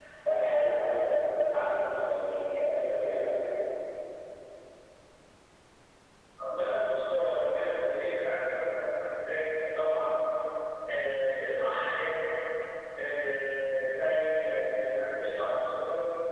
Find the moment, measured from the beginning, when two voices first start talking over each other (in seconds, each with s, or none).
none